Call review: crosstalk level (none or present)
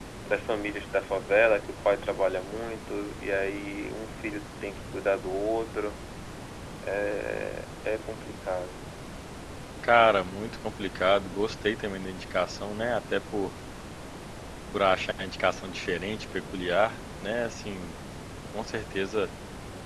none